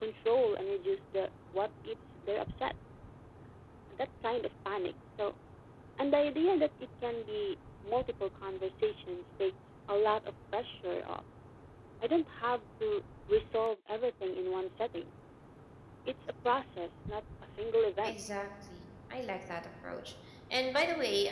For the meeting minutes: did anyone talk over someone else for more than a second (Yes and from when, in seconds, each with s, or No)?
No